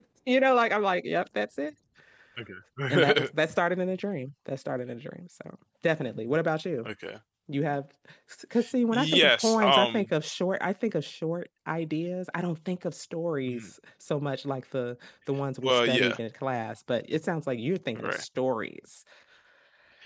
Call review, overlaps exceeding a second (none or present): present